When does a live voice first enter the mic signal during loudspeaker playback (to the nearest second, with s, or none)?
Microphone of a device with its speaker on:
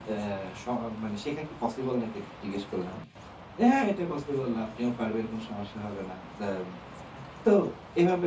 none